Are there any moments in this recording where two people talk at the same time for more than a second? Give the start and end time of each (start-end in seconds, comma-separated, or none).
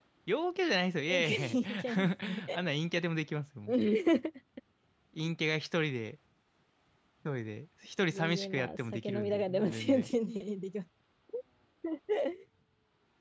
1.1-2.6, 8.1-10.1